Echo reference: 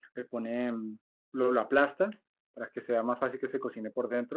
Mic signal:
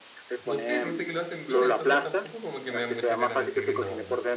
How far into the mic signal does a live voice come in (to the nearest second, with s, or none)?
0 s